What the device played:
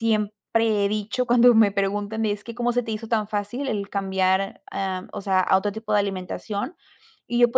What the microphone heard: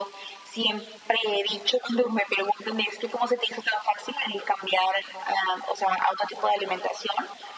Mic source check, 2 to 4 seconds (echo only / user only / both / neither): echo only